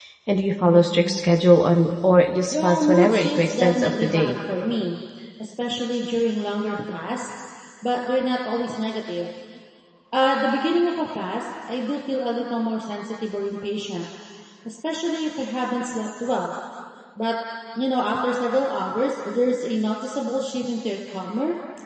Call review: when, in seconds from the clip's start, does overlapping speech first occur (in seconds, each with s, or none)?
2.5 s